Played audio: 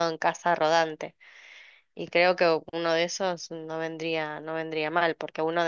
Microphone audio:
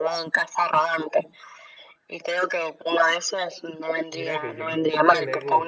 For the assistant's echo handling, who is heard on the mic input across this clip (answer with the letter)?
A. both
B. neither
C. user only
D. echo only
A